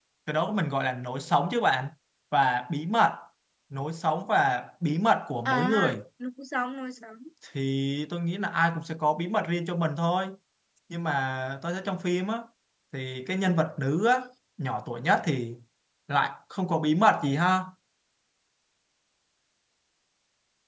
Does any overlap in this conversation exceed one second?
No

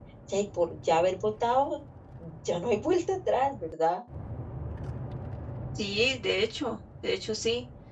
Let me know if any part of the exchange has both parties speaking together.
No

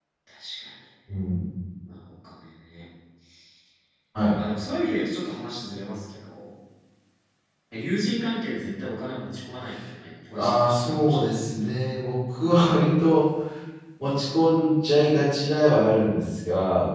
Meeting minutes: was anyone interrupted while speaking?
Yes, from 10.3 s

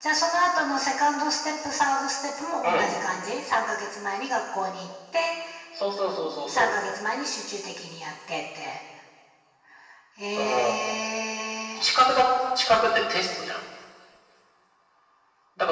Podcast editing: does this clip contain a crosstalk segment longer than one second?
No

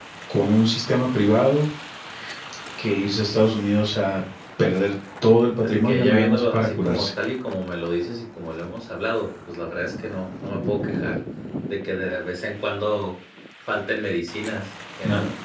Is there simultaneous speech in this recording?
Yes, from 5.6 s

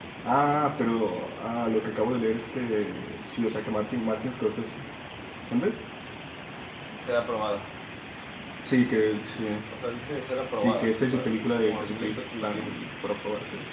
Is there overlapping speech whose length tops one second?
Yes, from 10.6 s

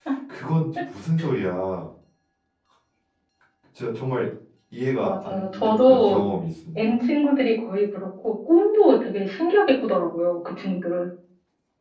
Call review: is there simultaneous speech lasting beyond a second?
Yes, from 5.0 s

